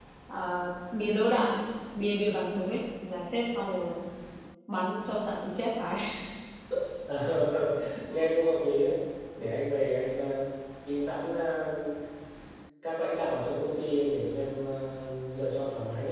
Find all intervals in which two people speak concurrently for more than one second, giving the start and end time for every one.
none

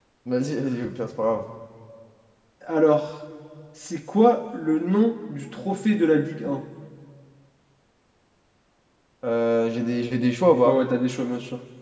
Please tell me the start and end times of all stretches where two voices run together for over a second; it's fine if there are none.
none

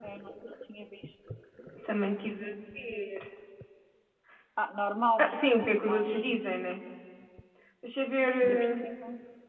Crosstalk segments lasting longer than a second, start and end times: 5.2-6.4

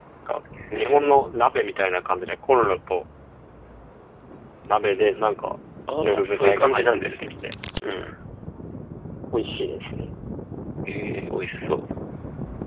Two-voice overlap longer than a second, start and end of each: 6.0-7.3

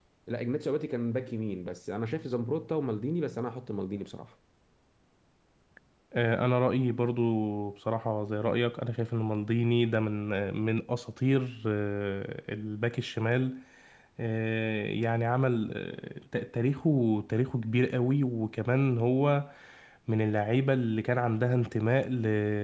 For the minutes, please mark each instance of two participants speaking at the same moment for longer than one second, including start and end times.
none

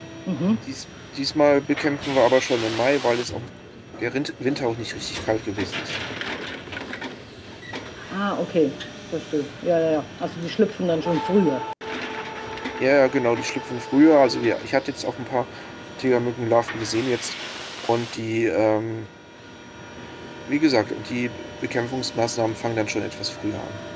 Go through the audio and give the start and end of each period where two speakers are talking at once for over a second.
none

